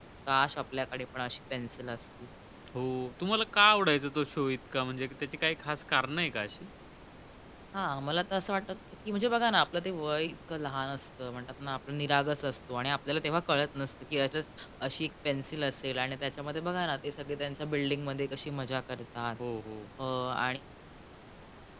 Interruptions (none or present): none